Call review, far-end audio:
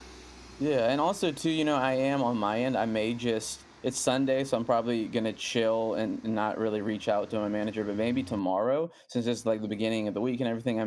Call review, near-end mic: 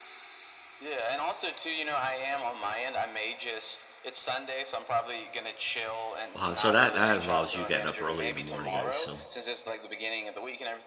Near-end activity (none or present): present